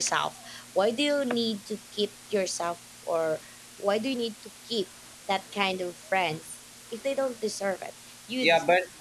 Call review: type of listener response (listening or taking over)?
taking over